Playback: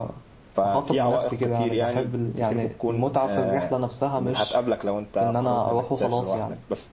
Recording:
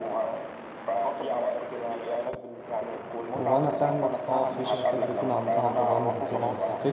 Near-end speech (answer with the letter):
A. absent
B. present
B